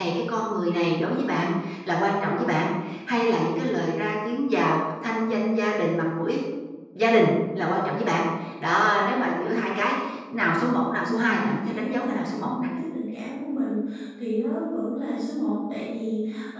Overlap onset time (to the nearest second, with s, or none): 11 s